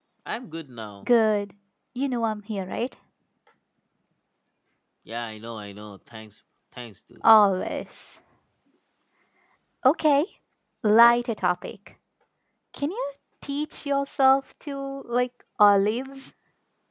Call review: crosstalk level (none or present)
none